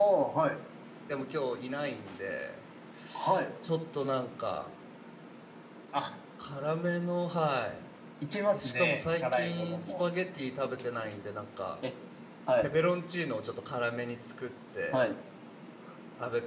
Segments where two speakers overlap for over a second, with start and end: 8.5-10.0

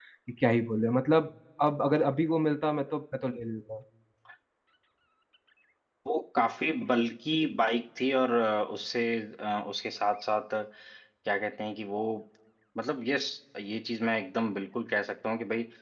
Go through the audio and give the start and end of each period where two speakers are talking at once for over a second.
none

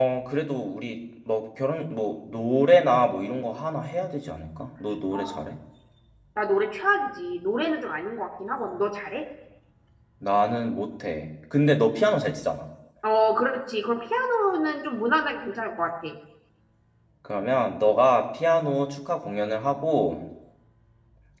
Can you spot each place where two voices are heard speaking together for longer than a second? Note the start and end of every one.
none

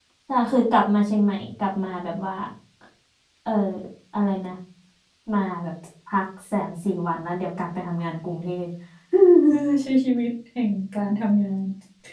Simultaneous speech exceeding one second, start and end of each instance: none

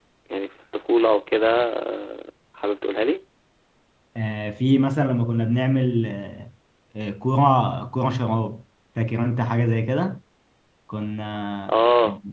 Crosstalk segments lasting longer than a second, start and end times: none

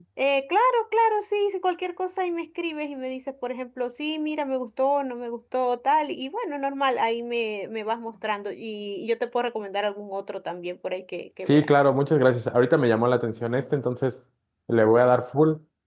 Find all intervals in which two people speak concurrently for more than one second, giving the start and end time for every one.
none

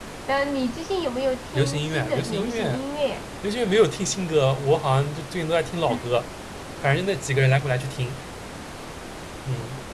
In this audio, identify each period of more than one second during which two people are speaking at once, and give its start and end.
1.5-2.8

